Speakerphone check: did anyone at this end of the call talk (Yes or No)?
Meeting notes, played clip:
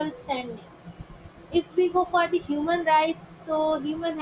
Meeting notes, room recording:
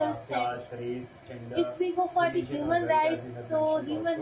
Yes